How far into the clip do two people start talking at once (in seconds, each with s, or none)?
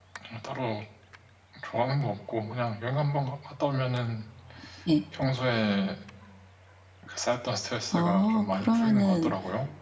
7.9 s